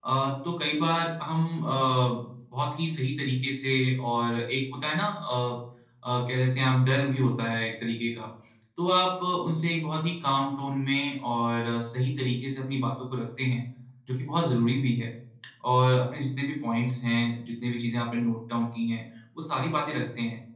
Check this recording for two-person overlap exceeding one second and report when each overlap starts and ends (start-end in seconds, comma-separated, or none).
none